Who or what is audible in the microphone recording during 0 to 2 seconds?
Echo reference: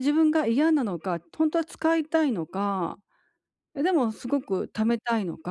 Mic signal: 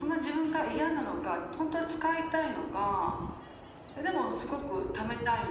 echo only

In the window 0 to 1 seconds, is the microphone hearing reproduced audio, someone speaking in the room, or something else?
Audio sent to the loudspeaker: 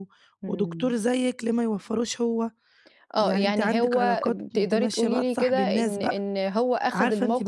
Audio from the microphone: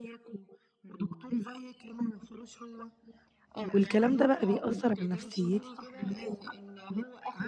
echo only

